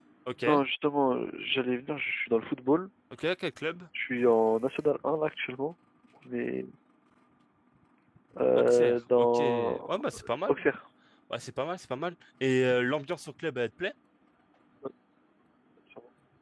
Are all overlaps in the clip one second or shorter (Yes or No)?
No